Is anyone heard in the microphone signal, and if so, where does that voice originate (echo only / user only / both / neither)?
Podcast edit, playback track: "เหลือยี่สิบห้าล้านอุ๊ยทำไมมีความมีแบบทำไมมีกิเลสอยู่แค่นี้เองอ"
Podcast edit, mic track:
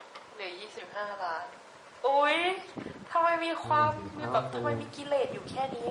both